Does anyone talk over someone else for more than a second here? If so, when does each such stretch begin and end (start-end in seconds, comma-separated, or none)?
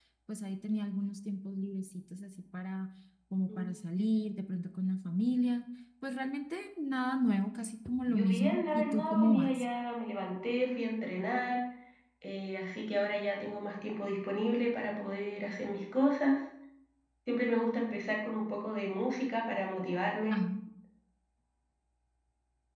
8.1-9.6